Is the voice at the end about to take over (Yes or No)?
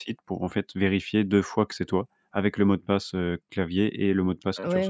Yes